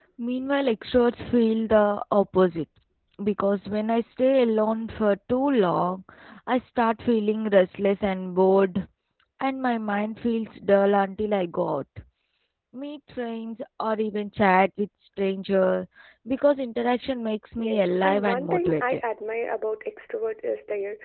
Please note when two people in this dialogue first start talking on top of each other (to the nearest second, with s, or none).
18 s